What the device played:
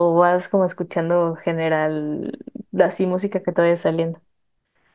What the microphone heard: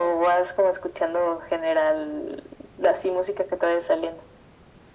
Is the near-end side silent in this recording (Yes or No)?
Yes